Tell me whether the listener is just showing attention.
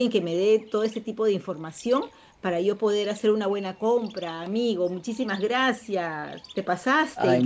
No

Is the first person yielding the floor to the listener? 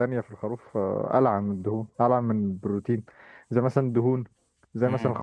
No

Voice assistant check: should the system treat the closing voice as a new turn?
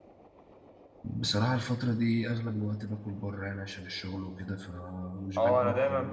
Yes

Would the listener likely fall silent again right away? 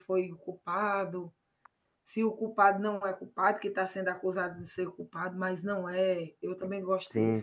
No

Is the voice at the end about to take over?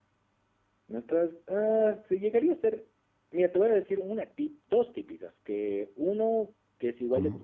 No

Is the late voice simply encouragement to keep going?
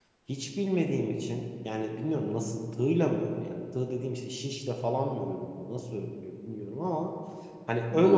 No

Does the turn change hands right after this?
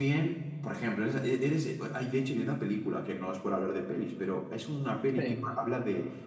No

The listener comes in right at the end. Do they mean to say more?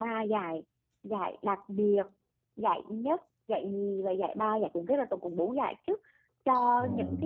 No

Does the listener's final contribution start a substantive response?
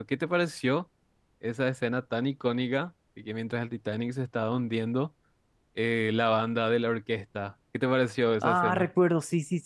Yes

